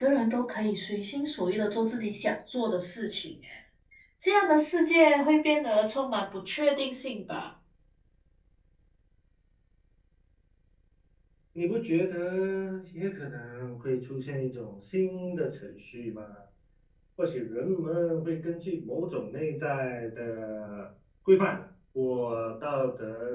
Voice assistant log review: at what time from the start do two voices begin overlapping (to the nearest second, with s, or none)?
none